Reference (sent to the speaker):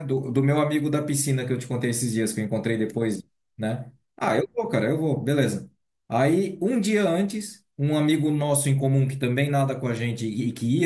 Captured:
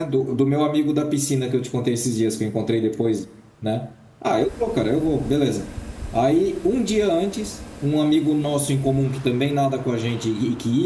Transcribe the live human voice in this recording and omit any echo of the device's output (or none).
none